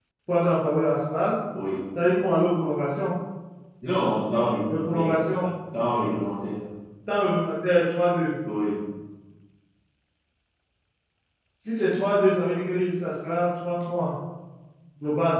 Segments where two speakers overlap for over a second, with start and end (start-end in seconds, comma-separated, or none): none